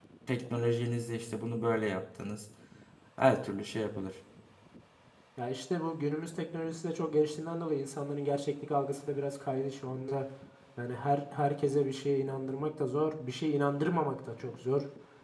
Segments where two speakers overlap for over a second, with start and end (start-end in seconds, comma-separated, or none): none